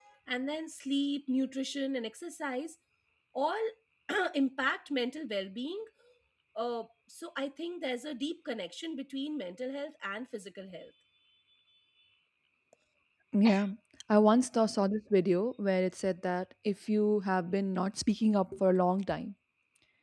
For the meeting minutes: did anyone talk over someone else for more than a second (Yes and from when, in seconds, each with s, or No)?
No